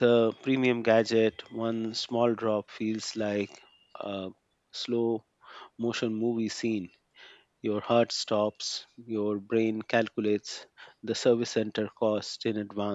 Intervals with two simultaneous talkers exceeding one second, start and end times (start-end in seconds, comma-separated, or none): none